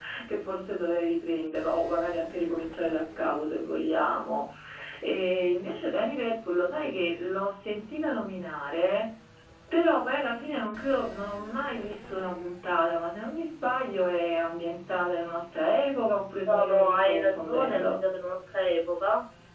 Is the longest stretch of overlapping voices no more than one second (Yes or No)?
No